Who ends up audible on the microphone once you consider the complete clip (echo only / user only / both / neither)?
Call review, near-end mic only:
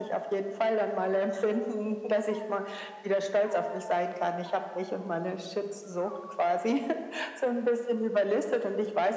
echo only